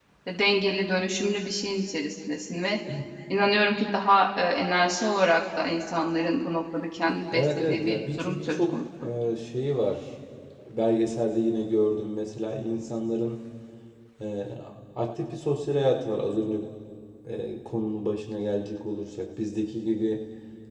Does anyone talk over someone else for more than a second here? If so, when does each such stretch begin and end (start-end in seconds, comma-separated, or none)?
7.3-9.1